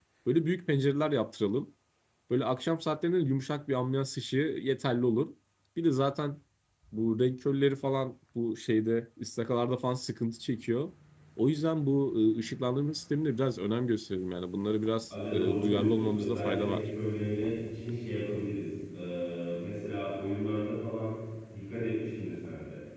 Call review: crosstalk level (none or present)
present